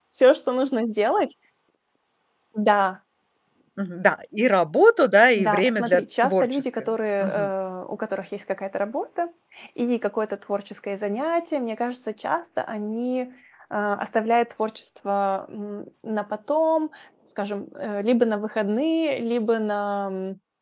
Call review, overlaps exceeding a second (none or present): present